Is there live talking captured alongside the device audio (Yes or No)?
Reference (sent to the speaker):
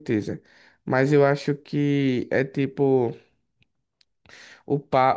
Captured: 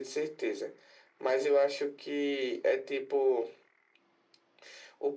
No